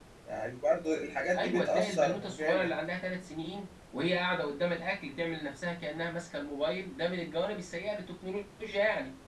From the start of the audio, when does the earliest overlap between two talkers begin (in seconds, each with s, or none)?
1.3 s